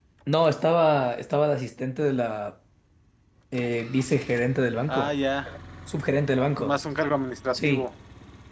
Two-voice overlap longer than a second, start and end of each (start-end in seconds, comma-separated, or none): none